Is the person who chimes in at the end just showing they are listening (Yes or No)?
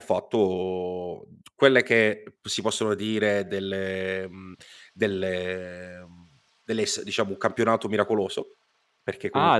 No